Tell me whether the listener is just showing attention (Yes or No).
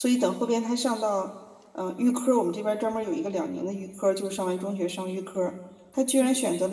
Yes